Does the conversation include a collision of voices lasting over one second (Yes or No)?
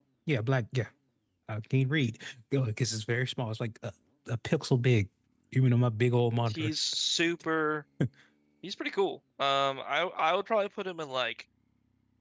No